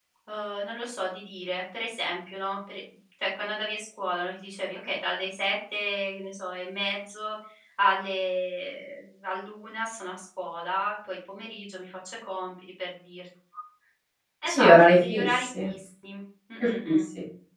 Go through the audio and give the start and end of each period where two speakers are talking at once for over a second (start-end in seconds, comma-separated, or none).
14.5-15.7